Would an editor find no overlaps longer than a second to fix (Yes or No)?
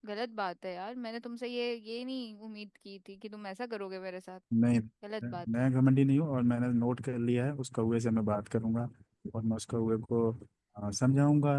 Yes